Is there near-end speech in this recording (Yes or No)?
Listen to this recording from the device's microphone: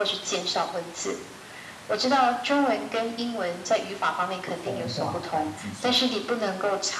Yes